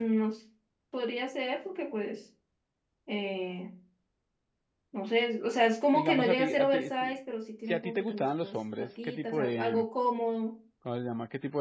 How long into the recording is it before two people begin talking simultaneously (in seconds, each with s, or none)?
5.9 s